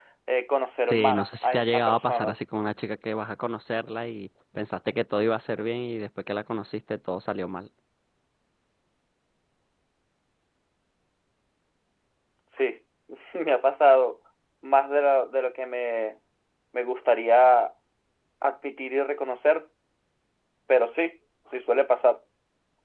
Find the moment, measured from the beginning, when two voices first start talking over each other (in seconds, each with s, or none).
0.9 s